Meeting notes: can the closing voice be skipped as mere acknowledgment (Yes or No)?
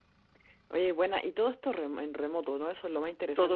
No